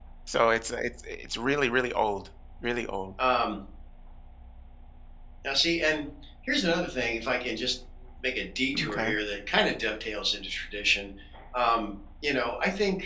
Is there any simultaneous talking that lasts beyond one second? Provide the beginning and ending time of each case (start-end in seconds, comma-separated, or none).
none